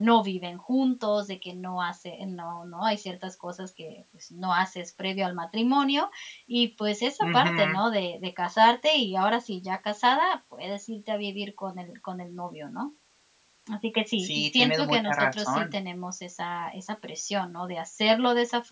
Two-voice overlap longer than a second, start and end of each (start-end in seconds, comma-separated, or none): 14.2-15.7